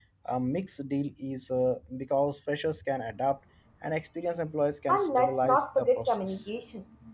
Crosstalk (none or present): present